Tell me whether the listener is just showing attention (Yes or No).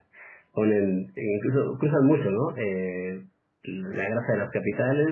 Yes